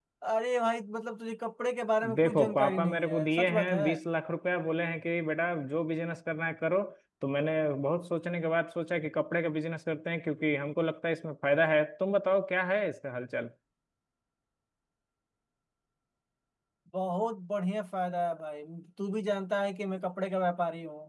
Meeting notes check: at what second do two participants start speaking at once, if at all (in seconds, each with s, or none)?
2.0 s